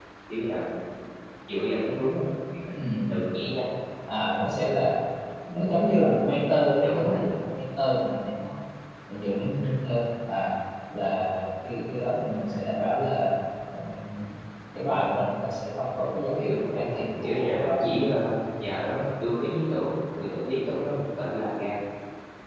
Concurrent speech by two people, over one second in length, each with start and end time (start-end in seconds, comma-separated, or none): 16.5-18.0